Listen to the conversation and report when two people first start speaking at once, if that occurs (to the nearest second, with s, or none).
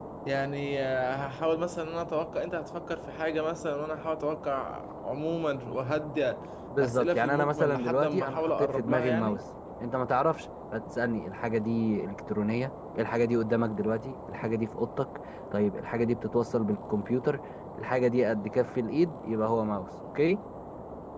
7 s